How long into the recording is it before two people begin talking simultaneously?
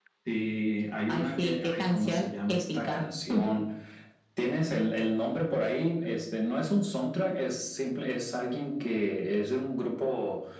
1 s

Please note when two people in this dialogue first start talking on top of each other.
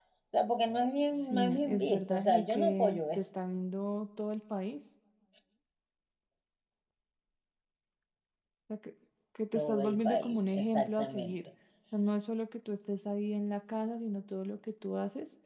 1 s

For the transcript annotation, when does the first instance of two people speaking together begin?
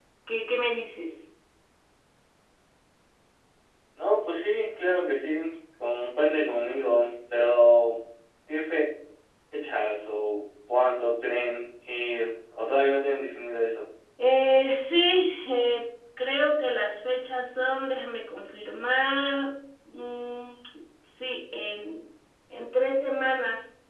none

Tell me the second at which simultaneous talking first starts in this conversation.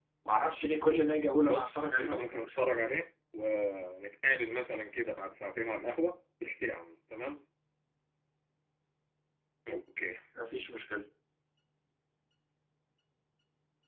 1 s

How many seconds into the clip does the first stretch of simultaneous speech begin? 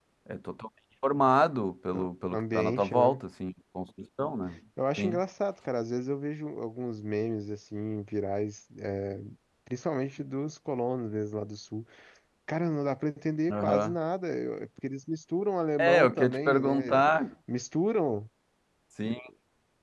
2 s

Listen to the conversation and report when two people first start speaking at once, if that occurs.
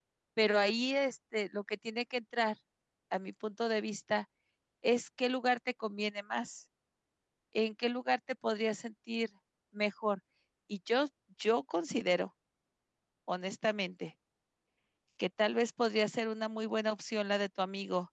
none

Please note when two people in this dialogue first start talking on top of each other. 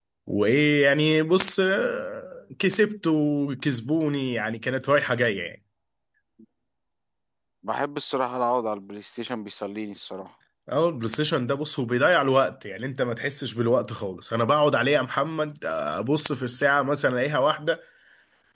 none

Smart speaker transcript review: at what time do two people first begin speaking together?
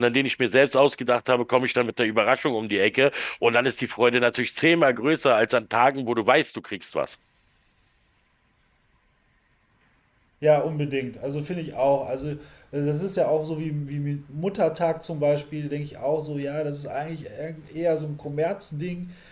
none

